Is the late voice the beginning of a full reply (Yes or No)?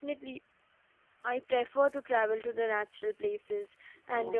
No